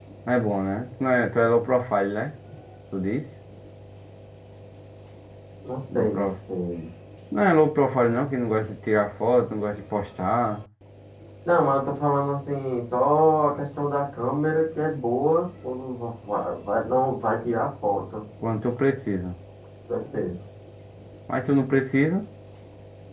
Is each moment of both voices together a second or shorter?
Yes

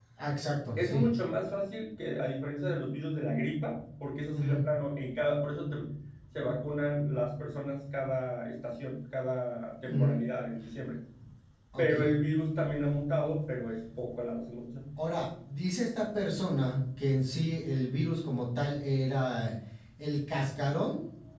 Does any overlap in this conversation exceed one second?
No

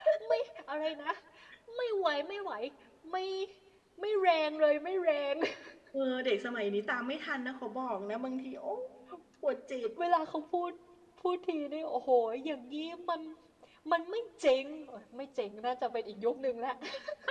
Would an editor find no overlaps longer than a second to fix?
Yes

